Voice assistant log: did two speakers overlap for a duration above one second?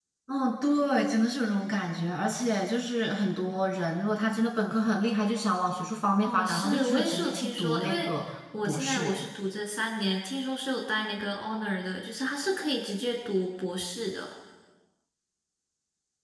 Yes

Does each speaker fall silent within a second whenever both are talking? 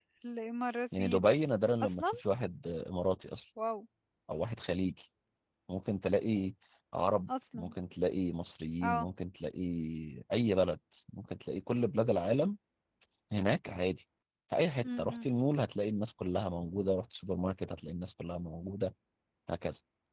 Yes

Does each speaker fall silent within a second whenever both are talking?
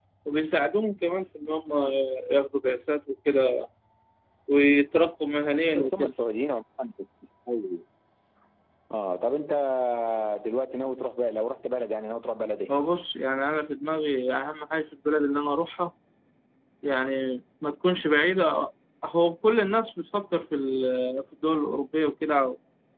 Yes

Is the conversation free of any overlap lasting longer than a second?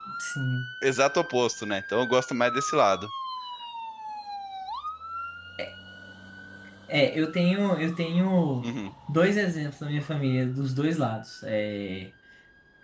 Yes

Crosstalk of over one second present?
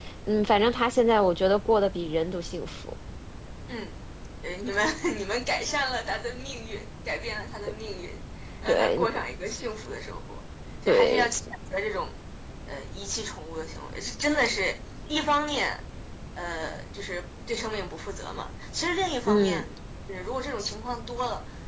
No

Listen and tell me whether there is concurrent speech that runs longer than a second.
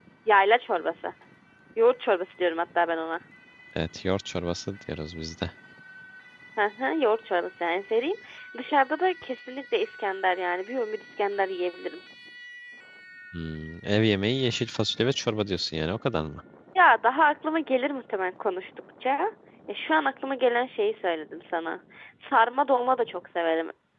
No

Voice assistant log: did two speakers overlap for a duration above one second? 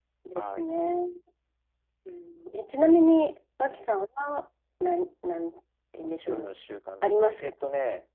No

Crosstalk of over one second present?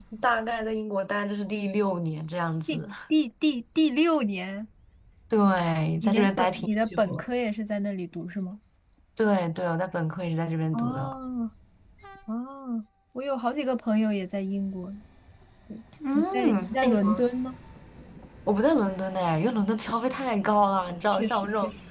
Yes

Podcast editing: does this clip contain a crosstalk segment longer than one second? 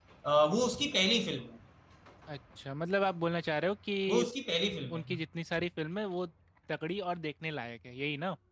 No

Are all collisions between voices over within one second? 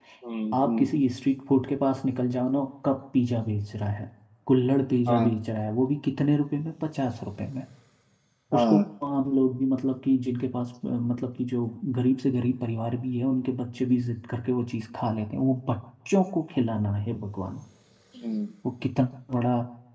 Yes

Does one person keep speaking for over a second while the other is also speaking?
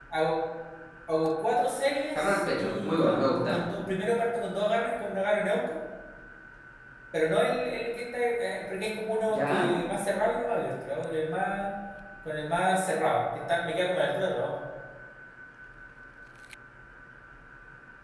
Yes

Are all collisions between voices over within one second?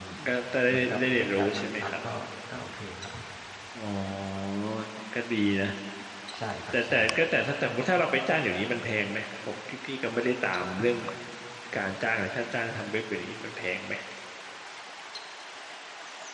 No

